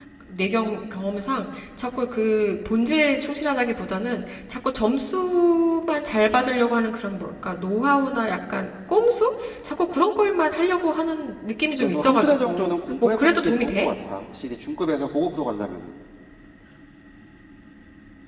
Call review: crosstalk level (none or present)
present